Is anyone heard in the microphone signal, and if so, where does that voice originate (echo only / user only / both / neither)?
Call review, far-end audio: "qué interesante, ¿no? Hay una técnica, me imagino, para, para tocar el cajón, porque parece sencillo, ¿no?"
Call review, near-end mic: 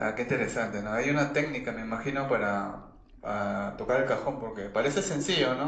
echo only